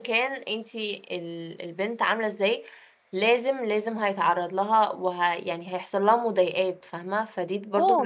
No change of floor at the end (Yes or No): No